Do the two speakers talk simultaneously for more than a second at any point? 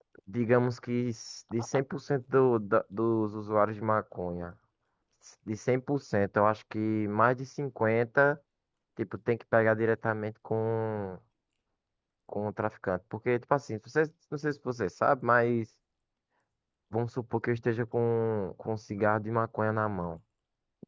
No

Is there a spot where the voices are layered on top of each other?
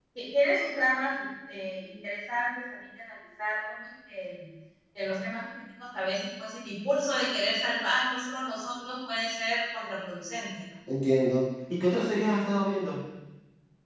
No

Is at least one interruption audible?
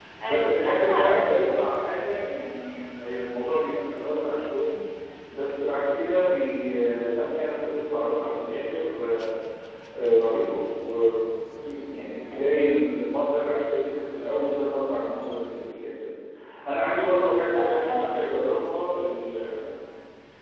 Yes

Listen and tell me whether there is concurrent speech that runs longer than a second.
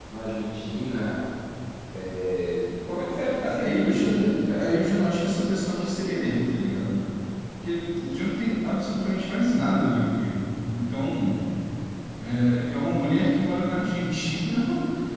Yes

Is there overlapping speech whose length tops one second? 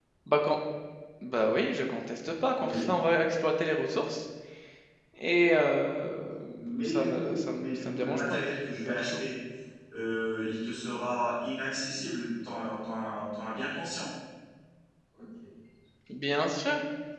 Yes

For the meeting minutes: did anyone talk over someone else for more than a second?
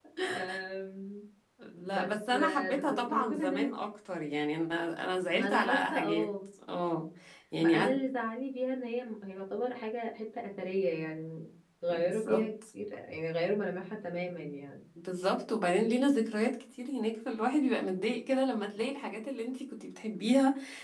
Yes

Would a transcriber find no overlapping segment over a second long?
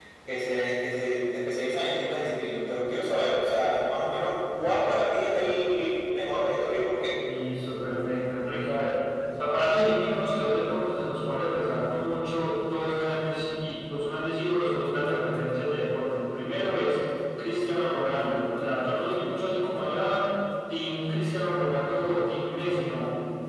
Yes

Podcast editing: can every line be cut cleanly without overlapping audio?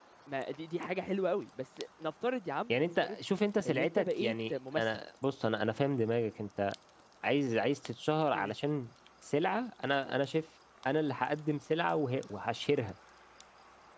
No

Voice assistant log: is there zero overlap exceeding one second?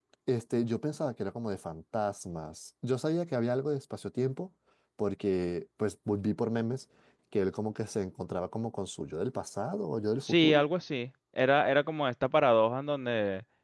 Yes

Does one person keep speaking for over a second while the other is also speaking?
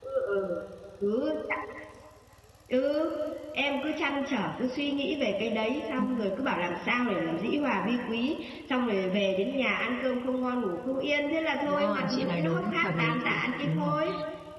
Yes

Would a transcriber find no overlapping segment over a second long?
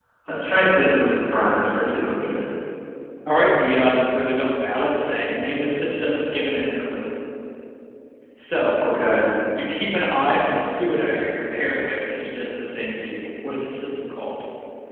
Yes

